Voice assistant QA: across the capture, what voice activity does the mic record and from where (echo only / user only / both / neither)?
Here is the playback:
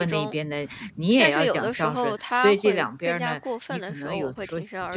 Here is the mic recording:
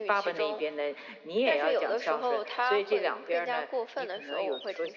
echo only